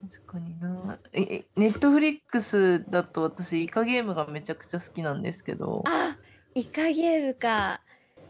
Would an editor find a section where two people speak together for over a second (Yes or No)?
No